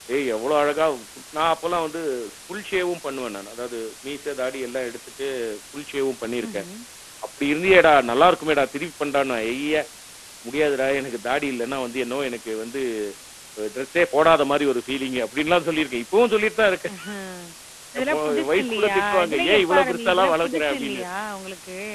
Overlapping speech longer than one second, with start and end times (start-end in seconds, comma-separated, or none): 18.0-21.0